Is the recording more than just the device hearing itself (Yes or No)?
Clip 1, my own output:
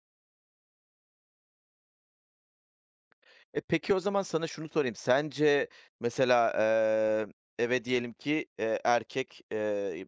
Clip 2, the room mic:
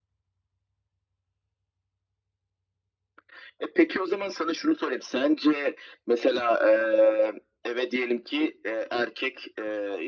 No